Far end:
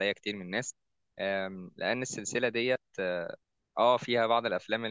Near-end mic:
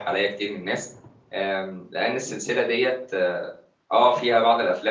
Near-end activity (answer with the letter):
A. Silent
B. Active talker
A